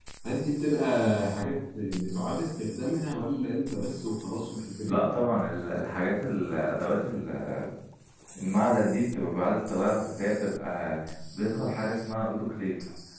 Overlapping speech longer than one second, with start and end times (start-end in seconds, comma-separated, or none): none